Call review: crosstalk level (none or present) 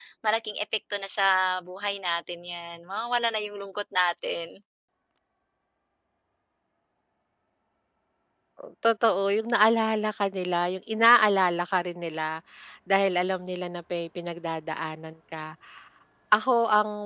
none